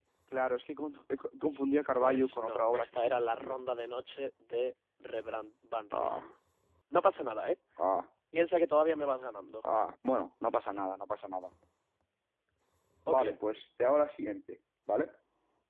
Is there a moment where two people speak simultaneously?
Yes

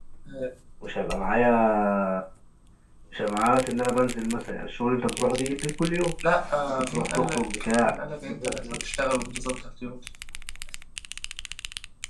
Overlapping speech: Yes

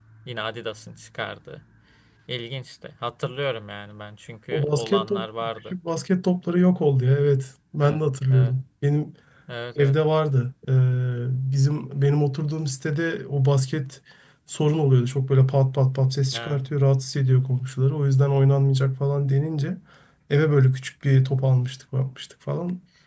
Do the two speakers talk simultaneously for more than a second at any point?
Yes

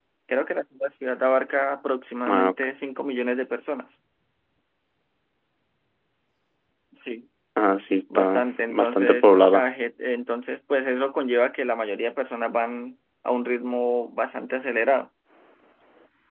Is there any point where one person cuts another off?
Yes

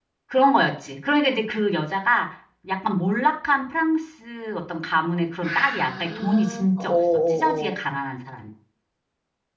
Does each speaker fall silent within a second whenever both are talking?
No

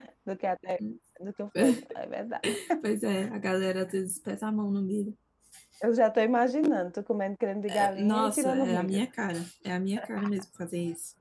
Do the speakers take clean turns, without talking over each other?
No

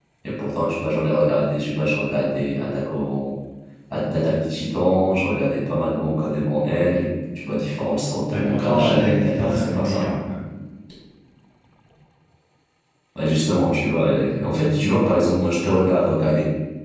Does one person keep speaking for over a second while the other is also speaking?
Yes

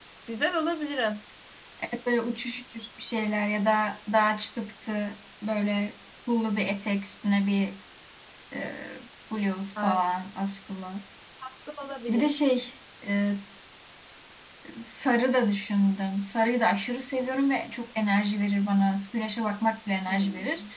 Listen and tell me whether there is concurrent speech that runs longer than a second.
No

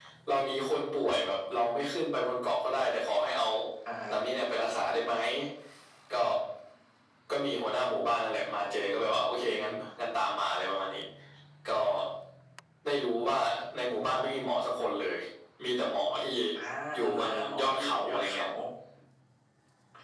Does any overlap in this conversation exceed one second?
Yes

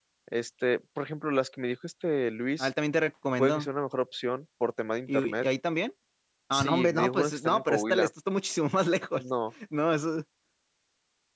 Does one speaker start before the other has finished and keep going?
Yes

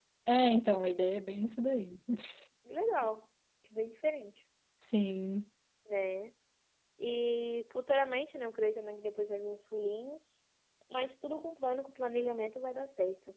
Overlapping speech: No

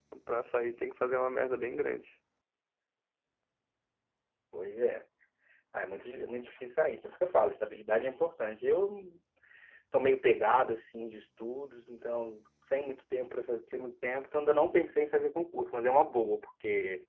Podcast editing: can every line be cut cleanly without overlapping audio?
Yes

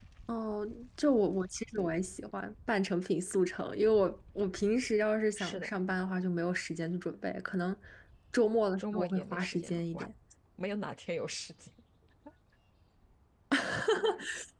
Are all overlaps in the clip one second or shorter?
No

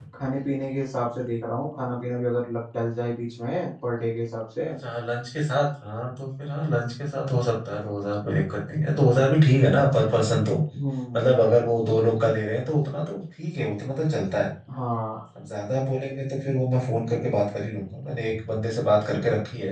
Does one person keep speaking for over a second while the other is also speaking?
No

